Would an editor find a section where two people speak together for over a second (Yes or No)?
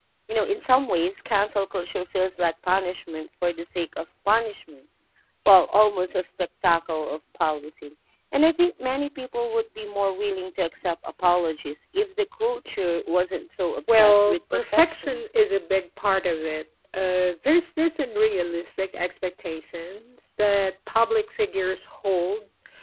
Yes